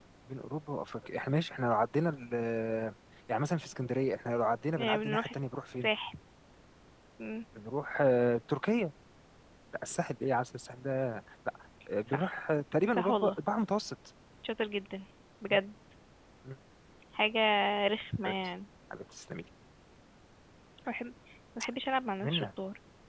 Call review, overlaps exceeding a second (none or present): none